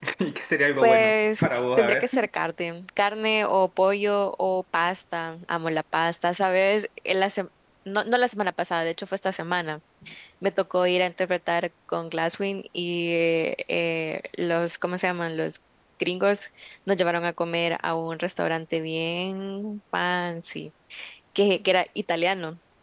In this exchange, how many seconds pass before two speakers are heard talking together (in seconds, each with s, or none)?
0.8 s